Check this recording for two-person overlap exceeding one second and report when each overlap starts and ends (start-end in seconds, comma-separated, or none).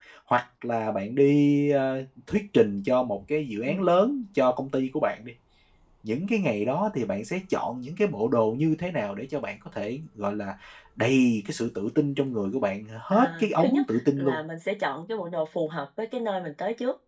13.1-14.4